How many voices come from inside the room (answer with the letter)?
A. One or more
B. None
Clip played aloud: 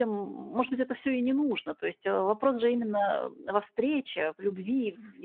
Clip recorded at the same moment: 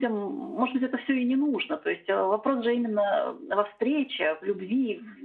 B